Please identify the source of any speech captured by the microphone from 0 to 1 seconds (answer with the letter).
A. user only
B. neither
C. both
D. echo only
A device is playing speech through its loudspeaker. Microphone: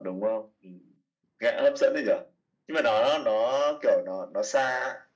D